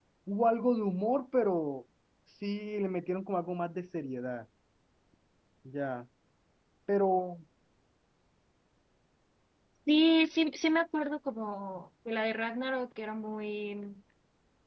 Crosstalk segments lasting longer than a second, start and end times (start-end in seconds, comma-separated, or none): none